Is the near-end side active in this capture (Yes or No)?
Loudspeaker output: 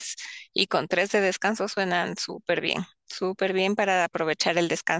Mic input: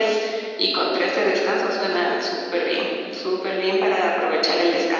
No